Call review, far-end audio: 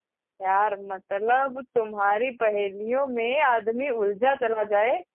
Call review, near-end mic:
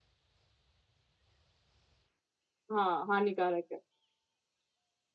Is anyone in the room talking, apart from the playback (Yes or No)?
Yes